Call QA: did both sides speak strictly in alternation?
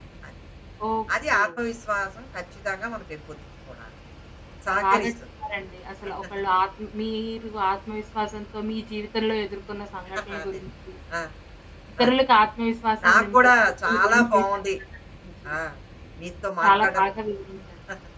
No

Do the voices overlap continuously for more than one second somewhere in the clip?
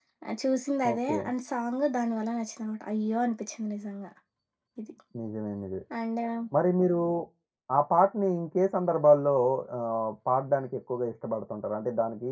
No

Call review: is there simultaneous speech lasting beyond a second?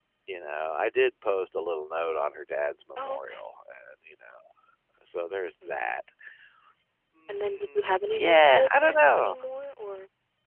Yes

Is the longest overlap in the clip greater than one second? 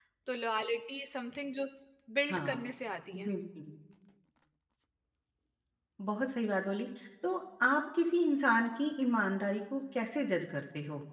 No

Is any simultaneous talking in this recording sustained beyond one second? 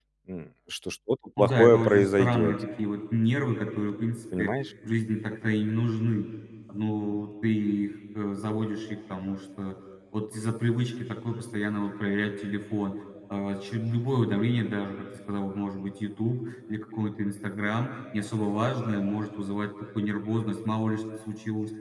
Yes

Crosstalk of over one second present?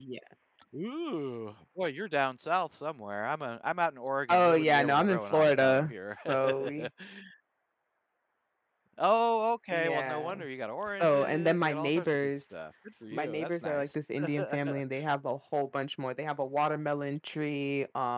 Yes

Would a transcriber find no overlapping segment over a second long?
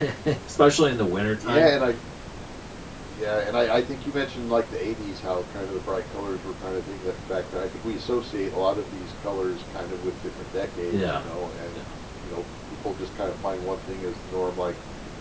Yes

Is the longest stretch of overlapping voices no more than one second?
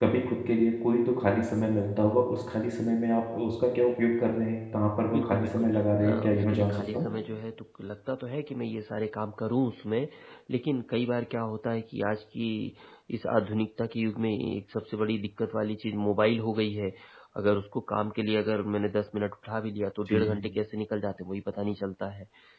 No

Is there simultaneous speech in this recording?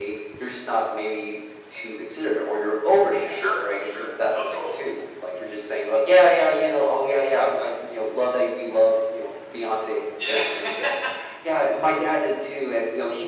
Yes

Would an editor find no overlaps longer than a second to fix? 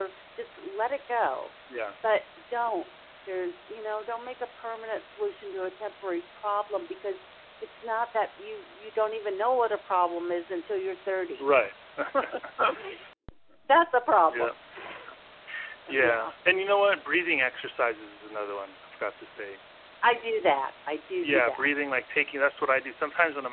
Yes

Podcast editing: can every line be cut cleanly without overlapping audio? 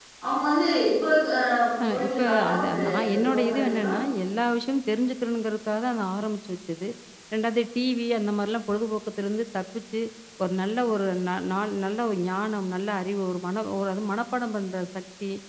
No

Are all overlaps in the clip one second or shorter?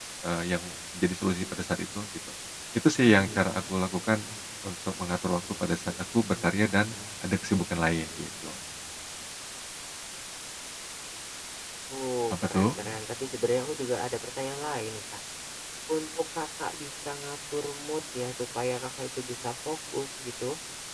Yes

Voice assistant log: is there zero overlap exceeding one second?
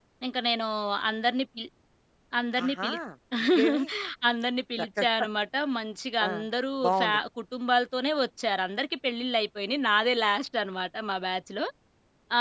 Yes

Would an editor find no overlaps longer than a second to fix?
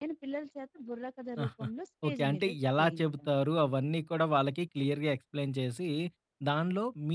No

